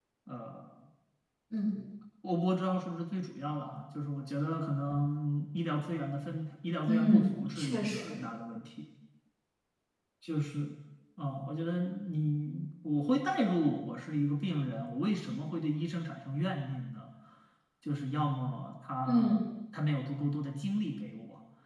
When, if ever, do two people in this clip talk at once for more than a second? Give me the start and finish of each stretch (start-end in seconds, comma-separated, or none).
6.9-8.2